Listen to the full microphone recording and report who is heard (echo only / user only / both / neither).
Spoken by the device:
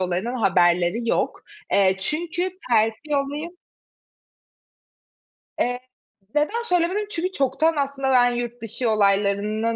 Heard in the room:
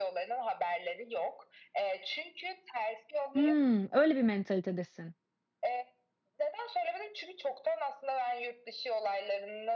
both